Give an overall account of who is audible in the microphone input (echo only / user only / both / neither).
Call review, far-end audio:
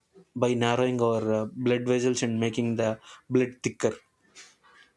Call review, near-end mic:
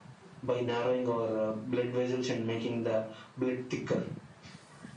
echo only